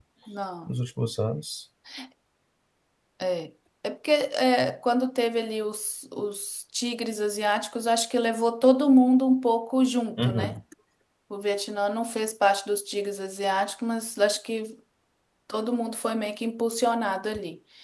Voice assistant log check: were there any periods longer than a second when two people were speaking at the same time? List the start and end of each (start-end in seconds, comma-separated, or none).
none